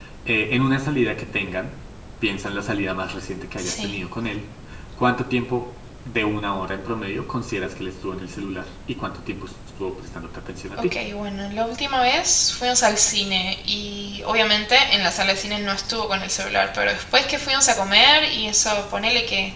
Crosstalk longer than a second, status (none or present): none